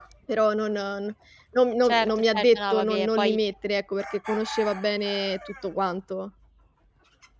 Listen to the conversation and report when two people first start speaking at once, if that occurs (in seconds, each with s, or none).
1.8 s